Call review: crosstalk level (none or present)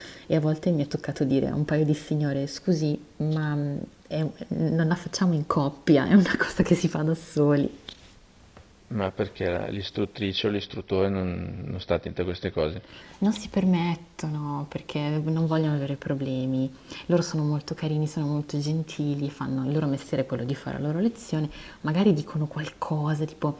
none